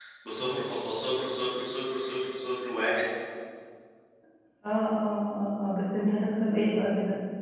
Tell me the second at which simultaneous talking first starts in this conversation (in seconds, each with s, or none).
none